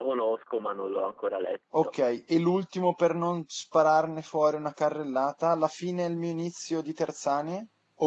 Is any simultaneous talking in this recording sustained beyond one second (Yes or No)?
No